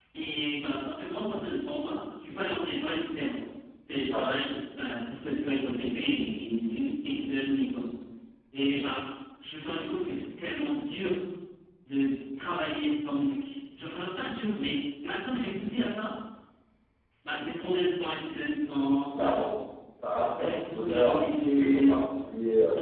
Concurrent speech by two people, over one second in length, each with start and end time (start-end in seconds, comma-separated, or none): 20.4-22.0